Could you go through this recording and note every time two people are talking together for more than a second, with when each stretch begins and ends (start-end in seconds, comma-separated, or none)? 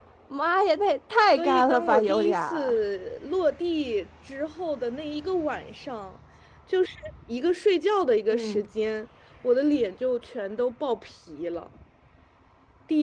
1.4-2.8